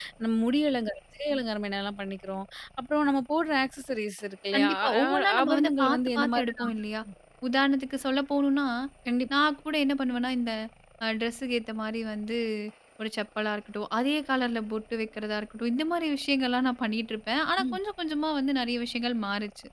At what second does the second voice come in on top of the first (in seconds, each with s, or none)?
4.5 s